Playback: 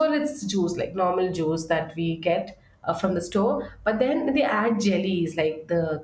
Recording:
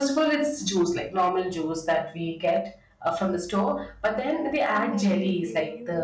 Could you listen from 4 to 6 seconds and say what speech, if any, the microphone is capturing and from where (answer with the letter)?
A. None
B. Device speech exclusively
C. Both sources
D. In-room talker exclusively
C